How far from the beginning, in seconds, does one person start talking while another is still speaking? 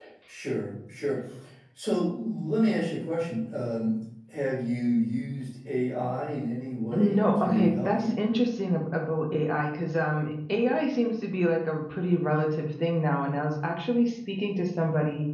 6.9 s

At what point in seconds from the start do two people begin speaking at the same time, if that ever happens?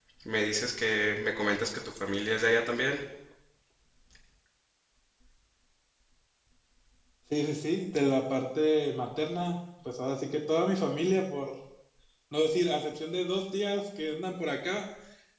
none

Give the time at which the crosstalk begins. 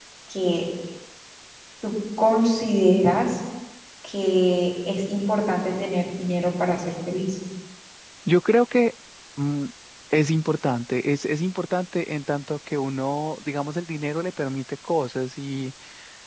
none

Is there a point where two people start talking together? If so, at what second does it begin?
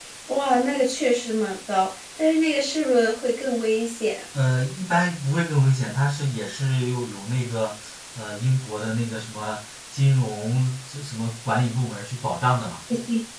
none

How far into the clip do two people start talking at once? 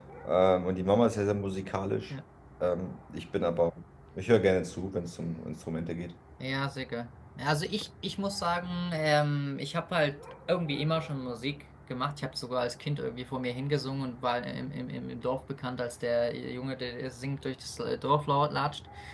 none

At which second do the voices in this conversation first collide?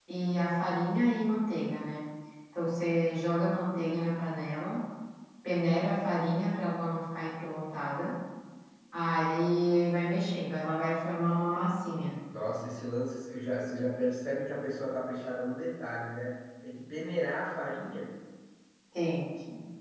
none

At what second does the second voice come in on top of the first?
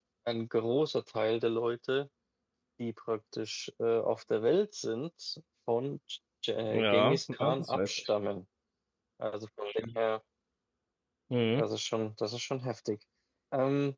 6.7 s

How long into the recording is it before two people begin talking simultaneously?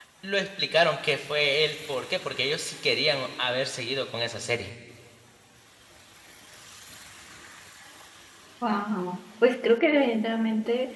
none

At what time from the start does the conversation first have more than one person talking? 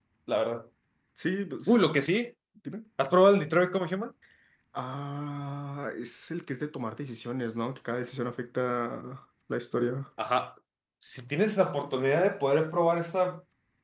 none

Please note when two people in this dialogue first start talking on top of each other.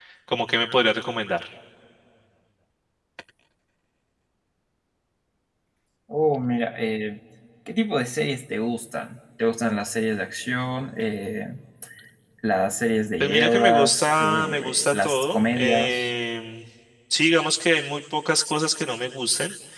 13.2 s

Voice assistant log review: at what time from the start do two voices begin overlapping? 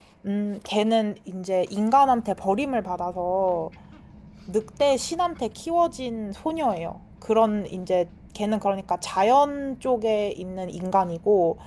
none

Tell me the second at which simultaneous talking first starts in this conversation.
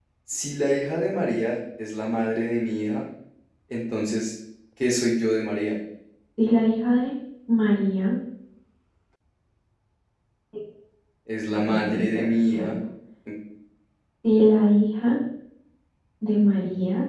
11.5 s

